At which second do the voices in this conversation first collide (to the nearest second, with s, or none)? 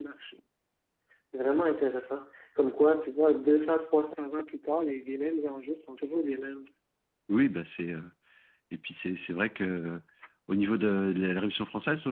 none